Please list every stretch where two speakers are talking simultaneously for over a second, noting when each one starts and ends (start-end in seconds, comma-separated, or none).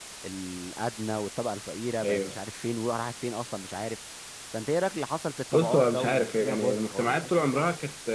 5.5-7.1